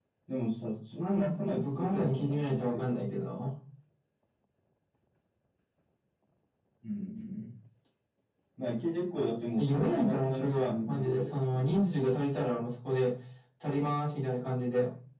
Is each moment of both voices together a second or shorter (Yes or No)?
No